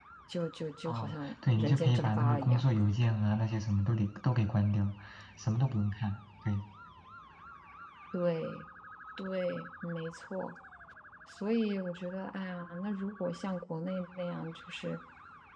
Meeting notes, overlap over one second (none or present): present